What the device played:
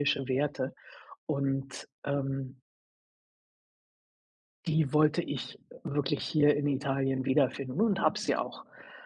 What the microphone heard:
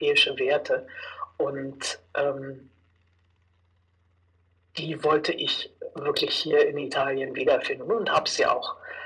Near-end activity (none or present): none